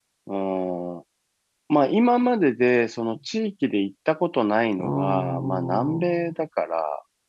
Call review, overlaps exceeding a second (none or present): present